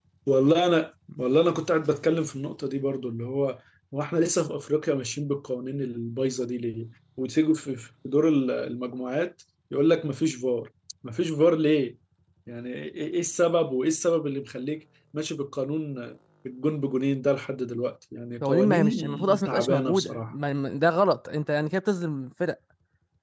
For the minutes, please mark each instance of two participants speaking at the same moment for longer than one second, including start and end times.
18.4-20.3

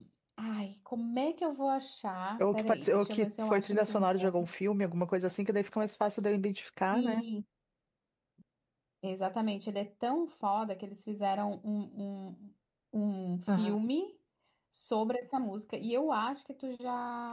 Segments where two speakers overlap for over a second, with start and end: 2.4-4.3

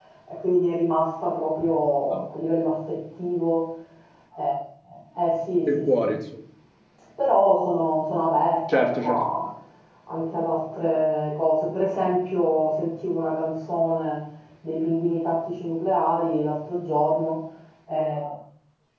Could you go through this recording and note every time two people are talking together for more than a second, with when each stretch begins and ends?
none

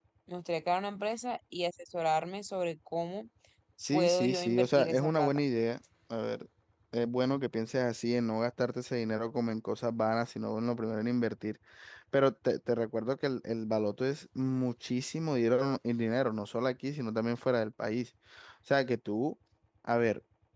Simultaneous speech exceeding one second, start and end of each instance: 3.9-5.4

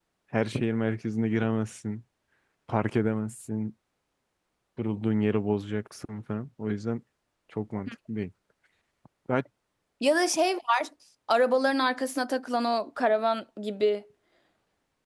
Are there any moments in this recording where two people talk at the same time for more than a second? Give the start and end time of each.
none

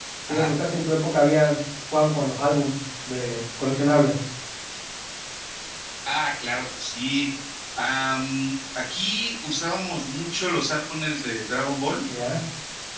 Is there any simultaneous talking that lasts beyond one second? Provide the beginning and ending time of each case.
none

